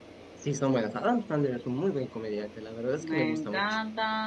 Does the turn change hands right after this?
Yes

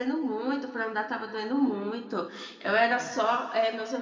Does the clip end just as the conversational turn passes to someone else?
No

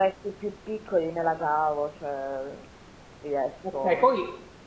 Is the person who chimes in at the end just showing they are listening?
No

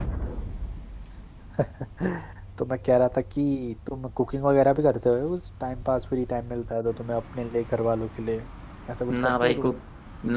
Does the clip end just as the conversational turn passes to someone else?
Yes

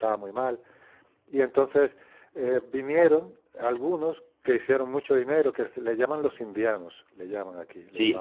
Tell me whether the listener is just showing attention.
No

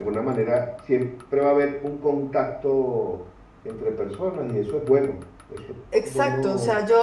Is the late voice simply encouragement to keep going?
No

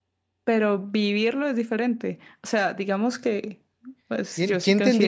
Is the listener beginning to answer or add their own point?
Yes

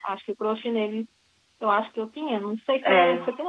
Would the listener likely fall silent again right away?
Yes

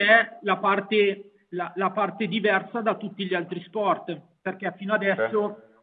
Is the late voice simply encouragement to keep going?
Yes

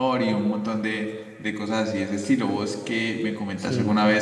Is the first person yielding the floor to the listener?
No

